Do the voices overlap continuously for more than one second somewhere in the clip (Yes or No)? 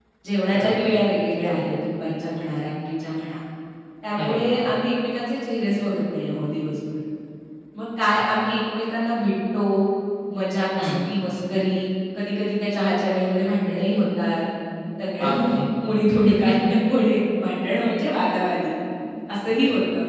No